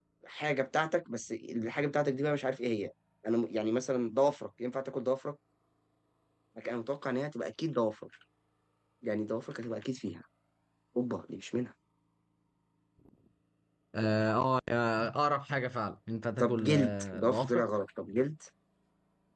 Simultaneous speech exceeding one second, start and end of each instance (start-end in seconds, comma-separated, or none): 16.4-17.6